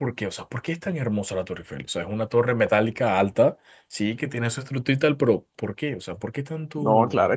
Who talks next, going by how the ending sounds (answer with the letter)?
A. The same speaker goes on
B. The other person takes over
B